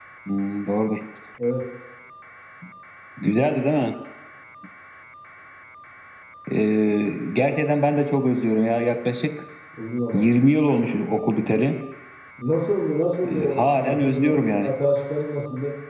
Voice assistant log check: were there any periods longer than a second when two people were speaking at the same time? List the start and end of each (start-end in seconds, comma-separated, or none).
13.3-14.7